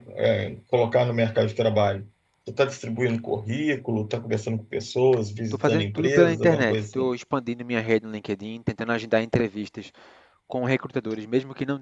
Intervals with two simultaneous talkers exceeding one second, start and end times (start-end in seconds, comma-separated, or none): 5.5-7.1